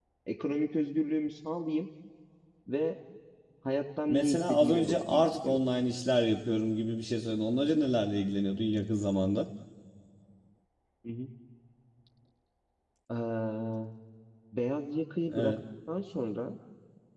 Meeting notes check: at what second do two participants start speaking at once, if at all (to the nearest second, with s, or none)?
4 s